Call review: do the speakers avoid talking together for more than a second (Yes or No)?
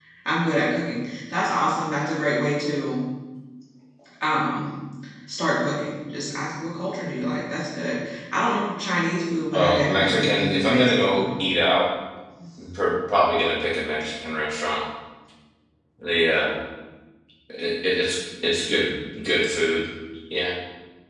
No